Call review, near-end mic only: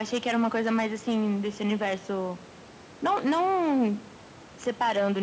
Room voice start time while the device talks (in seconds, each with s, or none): none